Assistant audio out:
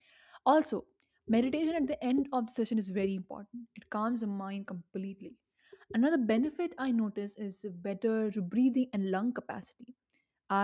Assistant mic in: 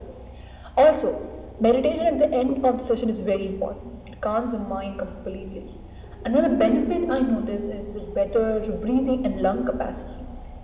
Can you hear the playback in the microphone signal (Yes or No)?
Yes